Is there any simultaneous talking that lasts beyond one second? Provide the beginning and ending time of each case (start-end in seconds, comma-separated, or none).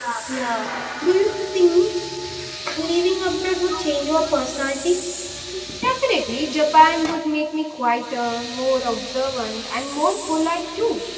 none